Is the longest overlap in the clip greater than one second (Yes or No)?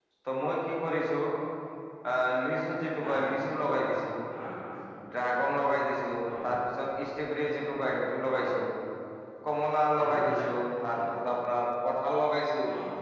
No